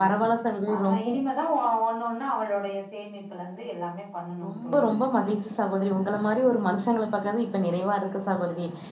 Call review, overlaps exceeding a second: none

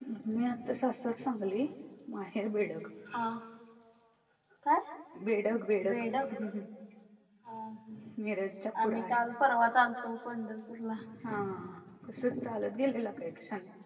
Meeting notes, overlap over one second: none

